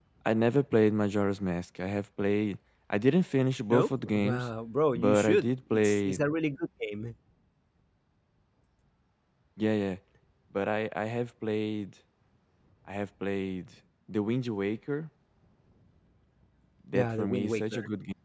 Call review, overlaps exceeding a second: present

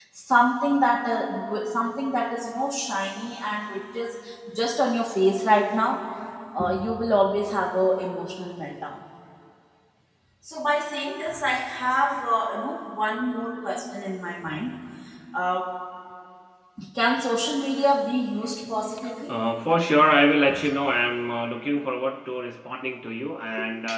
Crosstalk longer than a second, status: none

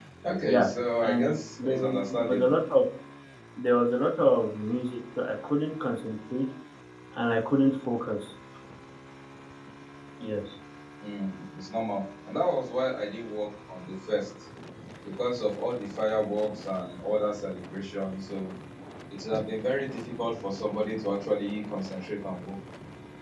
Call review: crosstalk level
present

